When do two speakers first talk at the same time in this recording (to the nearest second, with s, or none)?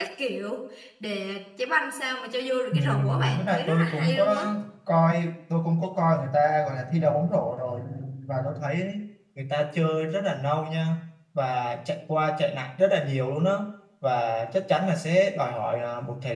3 s